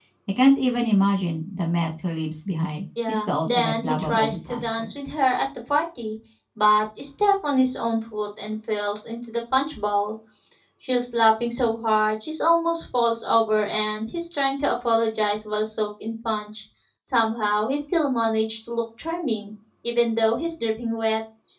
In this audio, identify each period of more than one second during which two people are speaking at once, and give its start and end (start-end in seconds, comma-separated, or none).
3.1-4.9